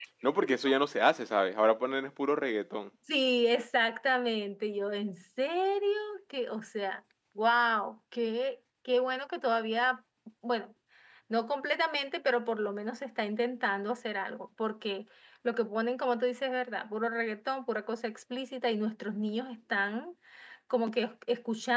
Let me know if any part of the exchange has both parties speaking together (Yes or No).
No